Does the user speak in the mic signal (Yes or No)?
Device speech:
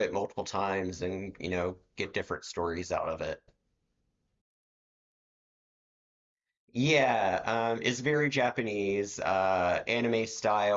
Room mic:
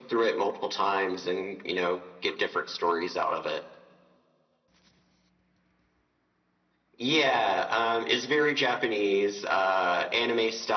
No